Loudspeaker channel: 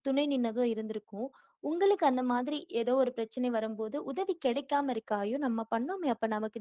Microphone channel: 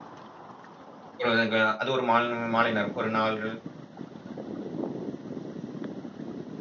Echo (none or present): none